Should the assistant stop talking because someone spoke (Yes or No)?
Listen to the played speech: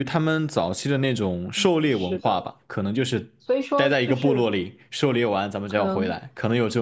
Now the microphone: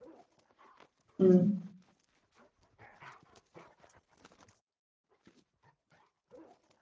Yes